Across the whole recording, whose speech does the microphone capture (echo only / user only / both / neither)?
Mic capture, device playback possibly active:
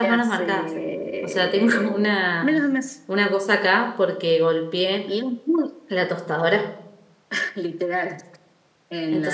both